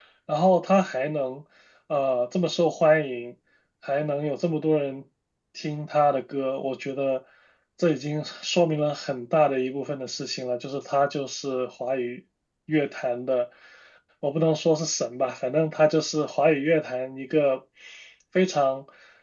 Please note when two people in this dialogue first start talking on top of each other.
none

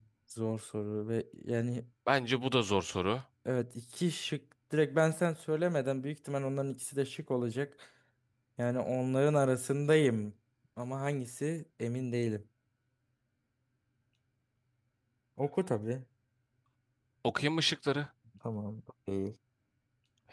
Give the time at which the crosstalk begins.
none

